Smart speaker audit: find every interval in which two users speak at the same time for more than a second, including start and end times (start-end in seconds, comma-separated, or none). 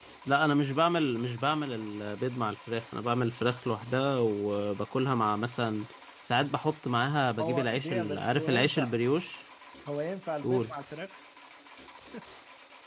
7.4-8.9